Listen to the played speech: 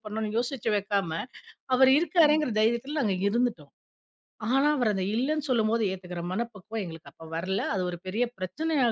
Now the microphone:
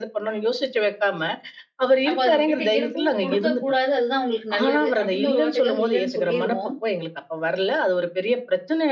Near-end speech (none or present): present